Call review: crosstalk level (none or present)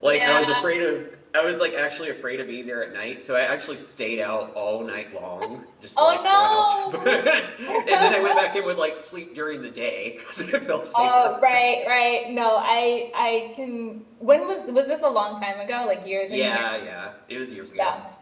present